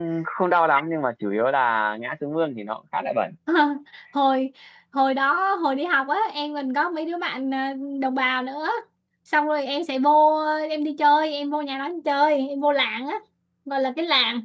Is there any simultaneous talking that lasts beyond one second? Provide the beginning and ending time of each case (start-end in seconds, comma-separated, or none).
none